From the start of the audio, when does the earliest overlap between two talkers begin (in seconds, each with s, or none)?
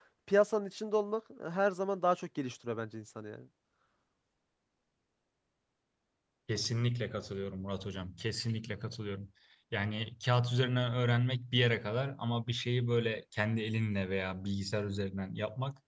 none